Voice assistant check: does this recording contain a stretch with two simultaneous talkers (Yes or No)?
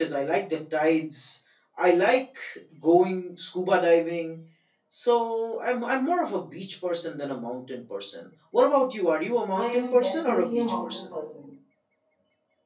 Yes